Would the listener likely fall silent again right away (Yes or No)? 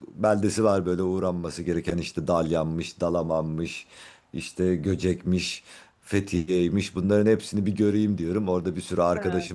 Yes